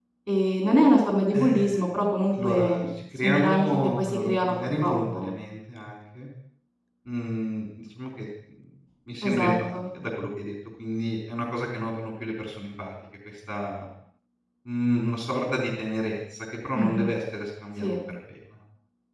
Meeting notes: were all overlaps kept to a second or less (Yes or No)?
No